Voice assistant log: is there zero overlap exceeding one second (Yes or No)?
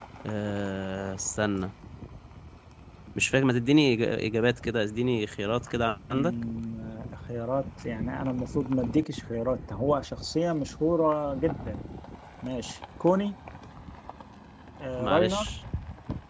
Yes